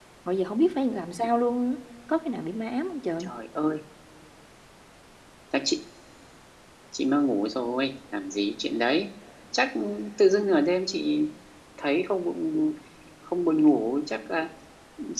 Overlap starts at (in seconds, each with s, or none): none